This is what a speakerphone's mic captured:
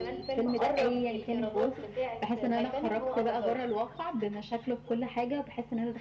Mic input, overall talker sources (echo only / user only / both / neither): both